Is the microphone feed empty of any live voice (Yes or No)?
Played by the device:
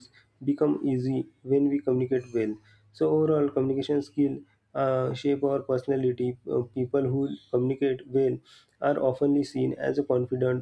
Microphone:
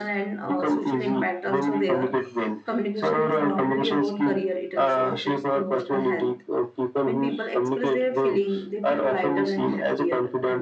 No